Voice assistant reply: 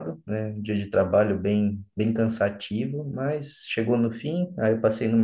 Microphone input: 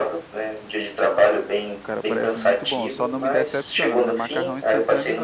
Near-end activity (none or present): present